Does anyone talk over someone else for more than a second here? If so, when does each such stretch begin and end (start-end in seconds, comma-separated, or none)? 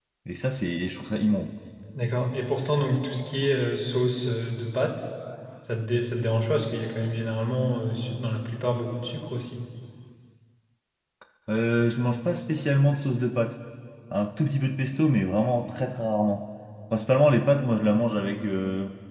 none